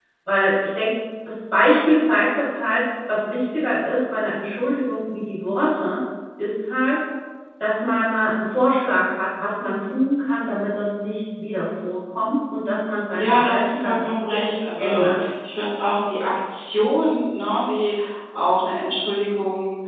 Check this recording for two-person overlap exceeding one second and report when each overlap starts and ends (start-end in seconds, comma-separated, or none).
13.1-15.2